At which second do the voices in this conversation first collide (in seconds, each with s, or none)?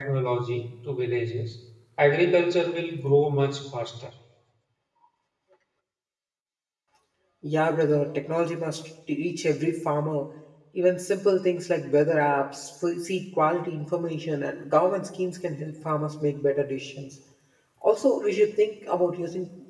none